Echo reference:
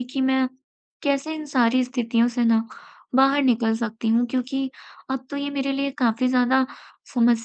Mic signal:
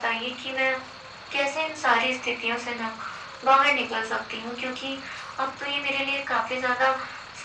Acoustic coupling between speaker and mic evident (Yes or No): Yes